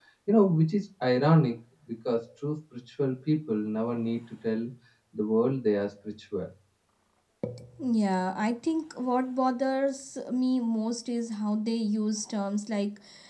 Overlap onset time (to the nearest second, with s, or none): none